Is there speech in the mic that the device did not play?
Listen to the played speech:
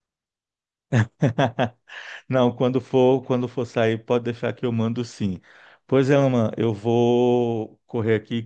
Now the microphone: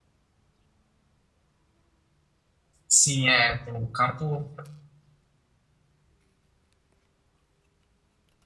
Yes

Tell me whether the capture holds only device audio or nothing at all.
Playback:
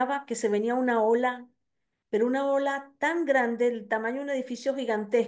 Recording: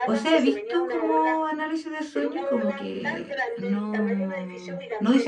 No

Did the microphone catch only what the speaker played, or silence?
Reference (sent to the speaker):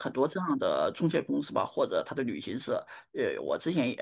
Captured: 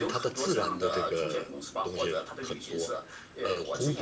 No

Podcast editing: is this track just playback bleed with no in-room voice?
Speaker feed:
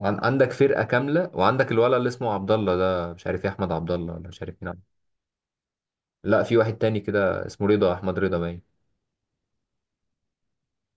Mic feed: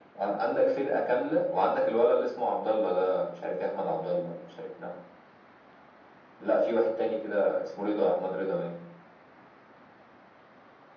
Yes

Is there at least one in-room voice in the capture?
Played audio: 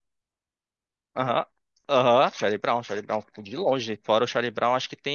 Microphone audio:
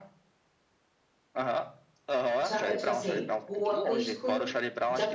Yes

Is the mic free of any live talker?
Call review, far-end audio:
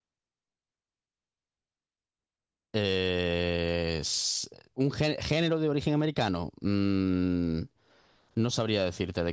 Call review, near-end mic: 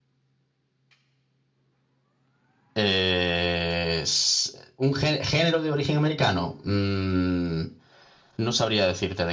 Yes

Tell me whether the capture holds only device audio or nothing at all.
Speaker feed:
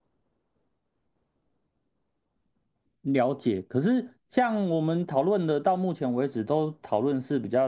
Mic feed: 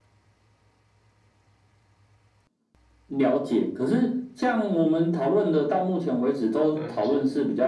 No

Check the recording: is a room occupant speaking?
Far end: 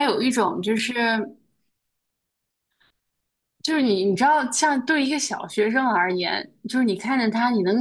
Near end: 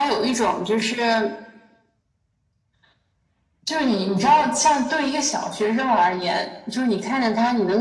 No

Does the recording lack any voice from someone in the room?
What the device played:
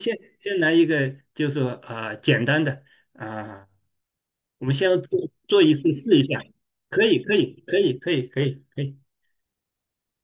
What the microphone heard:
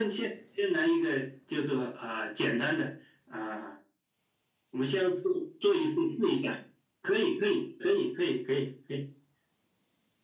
Yes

